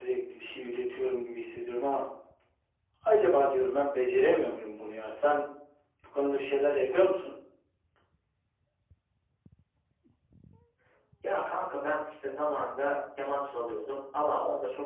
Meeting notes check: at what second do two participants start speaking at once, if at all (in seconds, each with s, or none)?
none